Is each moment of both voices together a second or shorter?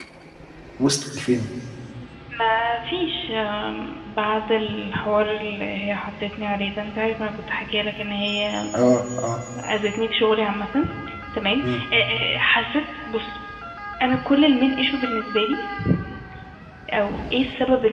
Yes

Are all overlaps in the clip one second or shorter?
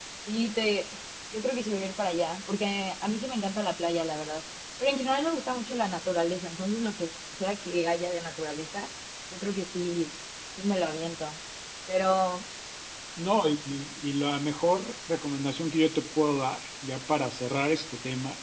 Yes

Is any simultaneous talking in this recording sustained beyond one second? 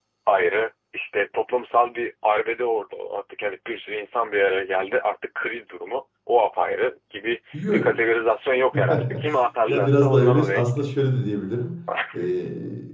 Yes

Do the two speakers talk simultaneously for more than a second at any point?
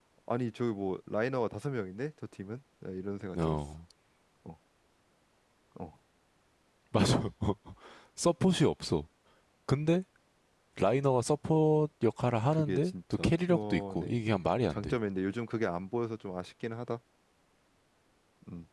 Yes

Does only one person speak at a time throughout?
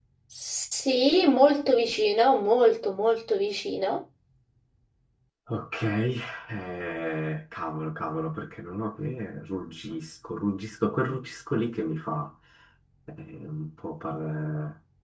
Yes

